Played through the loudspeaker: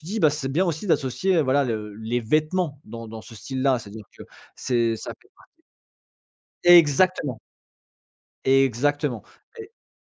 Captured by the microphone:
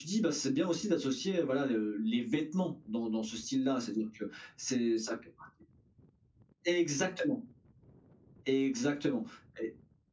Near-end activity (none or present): none